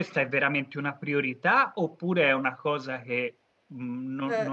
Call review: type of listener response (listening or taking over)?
taking over